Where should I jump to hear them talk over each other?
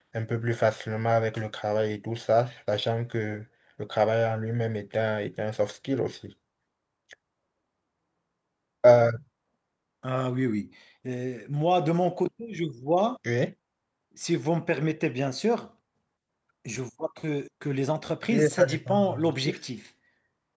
18.3 s

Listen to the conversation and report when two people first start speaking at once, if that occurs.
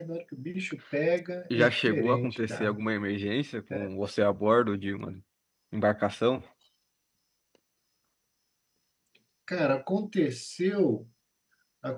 1.5 s

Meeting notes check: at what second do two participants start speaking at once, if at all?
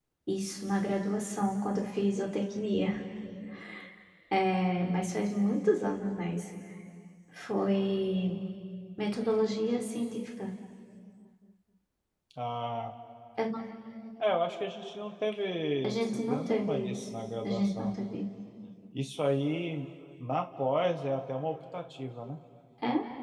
15.8 s

